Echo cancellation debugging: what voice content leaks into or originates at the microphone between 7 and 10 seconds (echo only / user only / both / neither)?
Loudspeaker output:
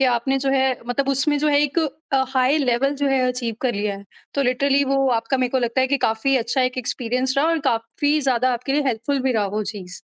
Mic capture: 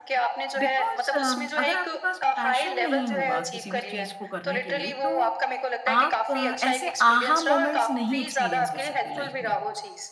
both